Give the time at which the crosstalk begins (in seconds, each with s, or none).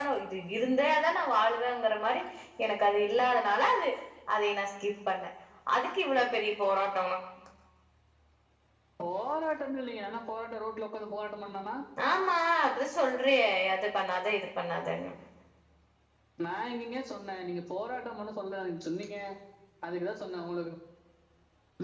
none